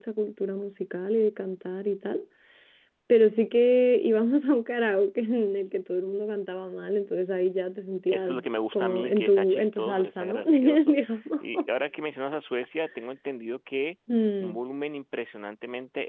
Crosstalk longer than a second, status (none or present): present